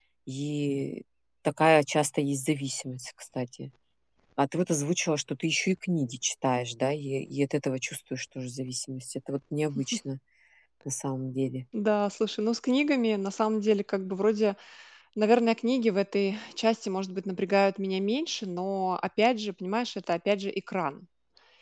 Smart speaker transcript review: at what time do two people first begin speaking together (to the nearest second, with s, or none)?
none